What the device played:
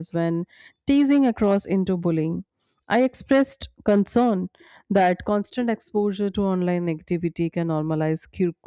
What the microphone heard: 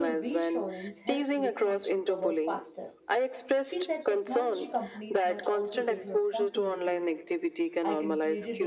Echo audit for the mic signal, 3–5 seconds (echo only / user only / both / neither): both